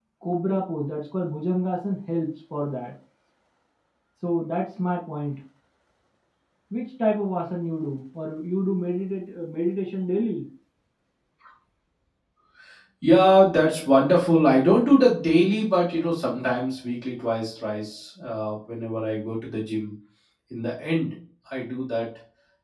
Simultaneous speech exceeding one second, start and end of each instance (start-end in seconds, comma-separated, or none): none